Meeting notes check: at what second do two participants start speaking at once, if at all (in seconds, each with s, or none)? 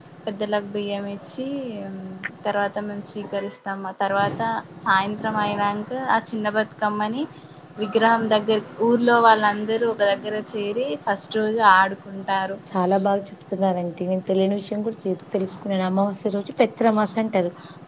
none